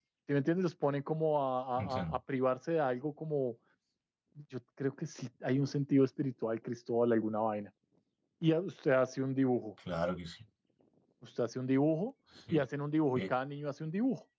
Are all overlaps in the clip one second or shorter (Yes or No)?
Yes